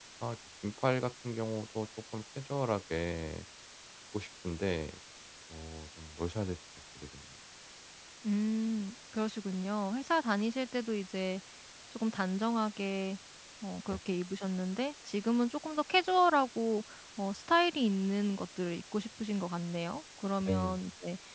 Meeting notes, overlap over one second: none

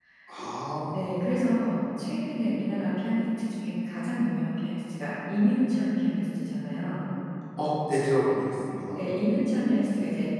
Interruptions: none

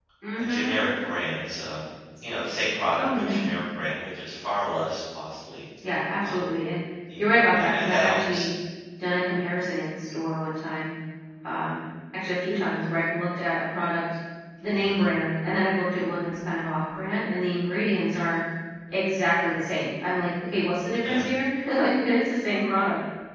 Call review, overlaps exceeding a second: present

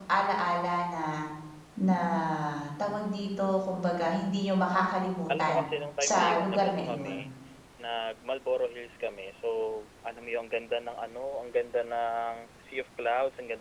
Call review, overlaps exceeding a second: present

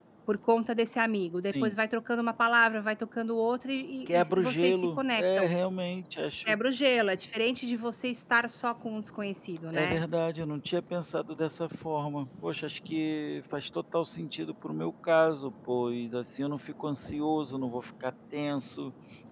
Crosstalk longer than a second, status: present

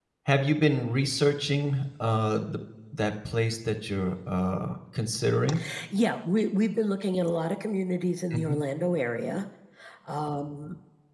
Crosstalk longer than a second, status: none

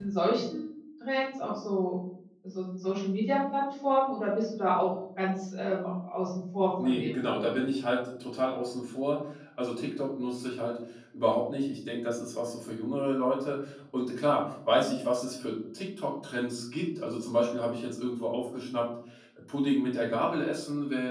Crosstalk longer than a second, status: none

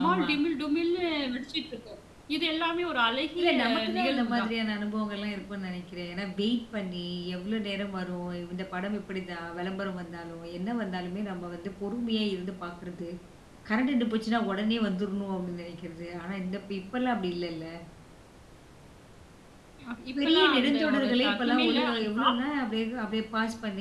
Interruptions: present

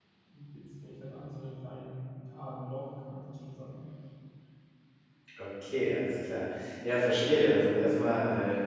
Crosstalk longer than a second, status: none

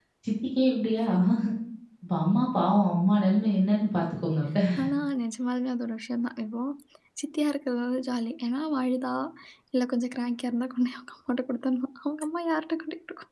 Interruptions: none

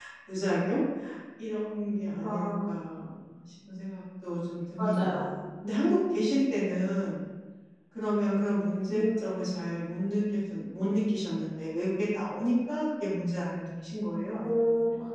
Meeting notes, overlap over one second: none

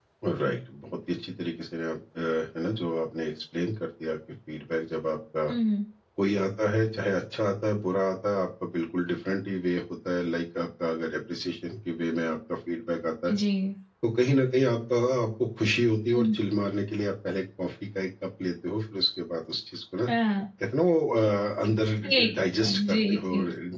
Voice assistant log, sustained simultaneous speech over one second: present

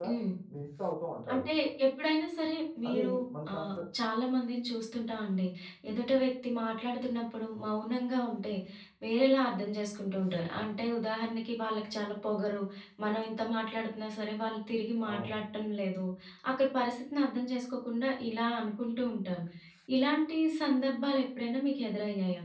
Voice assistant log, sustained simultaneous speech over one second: none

